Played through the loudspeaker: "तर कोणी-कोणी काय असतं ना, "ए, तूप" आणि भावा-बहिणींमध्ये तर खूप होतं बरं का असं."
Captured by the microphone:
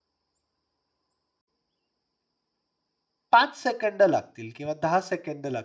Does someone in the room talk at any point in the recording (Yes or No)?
Yes